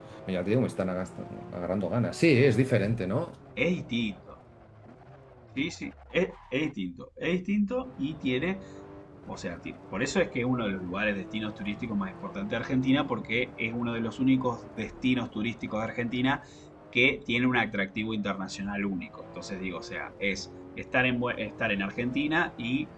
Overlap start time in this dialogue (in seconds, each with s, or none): none